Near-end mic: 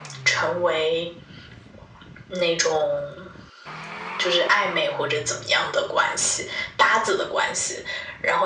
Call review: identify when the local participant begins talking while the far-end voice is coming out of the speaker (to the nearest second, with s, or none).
none